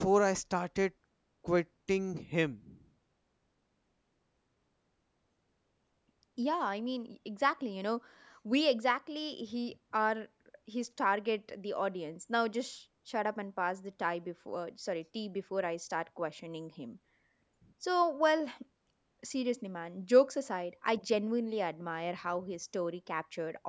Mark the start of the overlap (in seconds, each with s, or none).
none